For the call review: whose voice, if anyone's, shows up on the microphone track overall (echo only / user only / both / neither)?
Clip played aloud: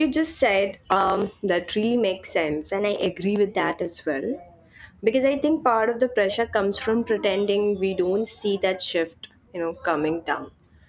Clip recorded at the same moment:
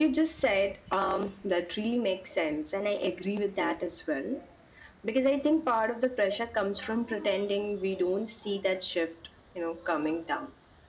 echo only